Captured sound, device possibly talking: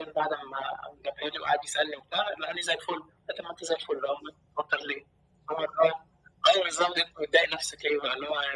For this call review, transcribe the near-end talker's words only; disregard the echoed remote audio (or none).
none